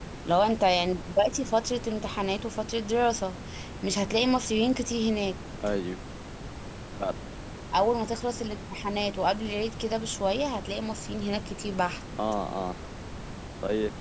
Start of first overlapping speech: none

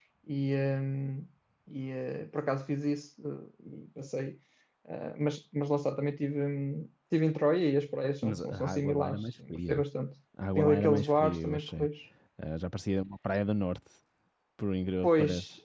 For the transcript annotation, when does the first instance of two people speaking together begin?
8.2 s

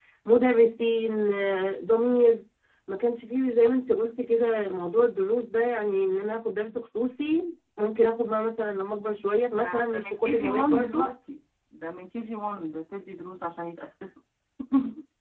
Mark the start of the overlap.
9.5 s

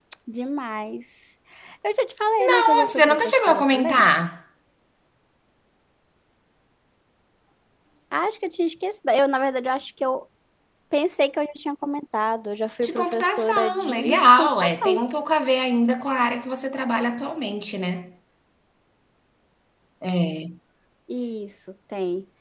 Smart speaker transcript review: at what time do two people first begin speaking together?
2.5 s

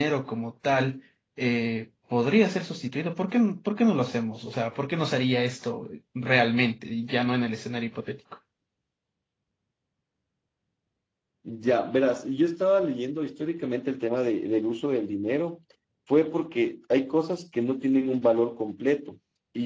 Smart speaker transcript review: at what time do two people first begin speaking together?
none

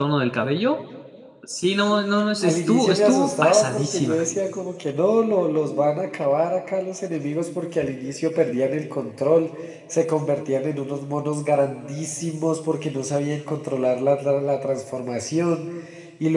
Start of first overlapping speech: 2.4 s

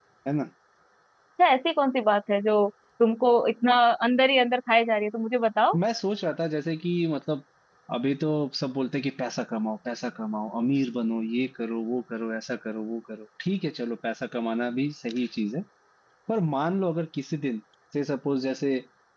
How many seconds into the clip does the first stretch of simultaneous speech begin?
none

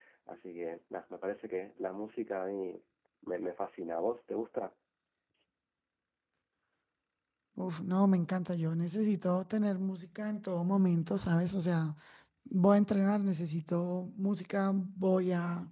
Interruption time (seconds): none

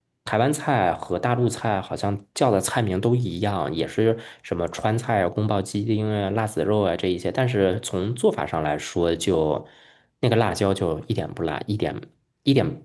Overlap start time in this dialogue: none

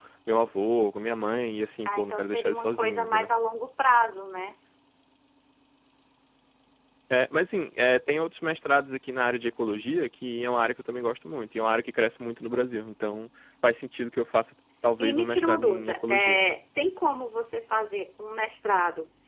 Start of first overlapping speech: 1.8 s

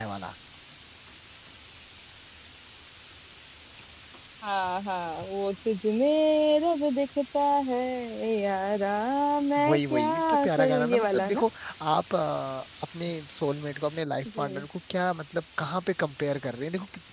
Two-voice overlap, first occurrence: 9.7 s

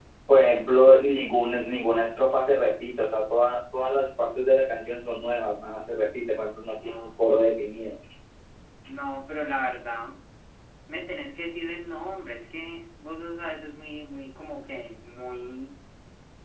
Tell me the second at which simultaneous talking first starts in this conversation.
none

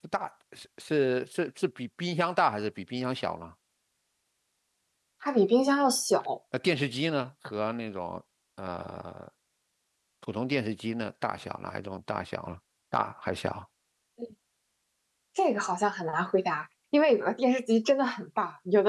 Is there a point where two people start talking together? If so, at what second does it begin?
none

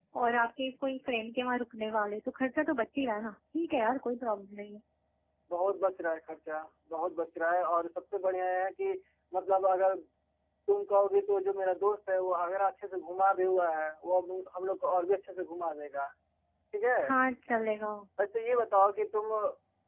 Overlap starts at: none

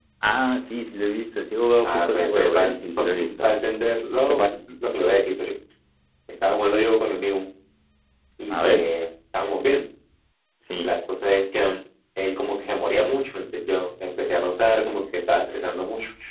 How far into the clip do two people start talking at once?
1.8 s

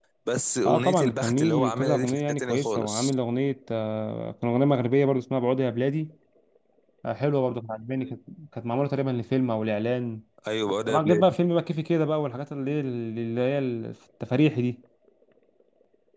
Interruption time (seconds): 0.7 s

